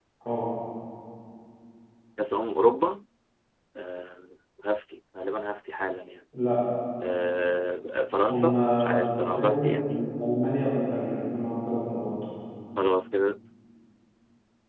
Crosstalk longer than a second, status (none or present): present